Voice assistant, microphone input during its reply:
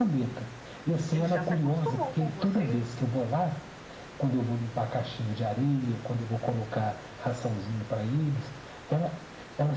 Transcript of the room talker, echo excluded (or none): Ele já se acostumou com você.